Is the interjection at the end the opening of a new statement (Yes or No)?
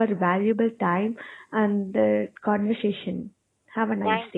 Yes